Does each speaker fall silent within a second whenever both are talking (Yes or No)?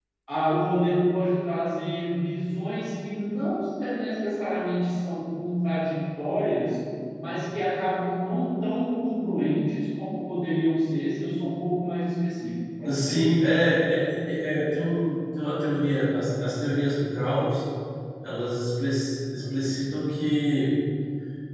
Yes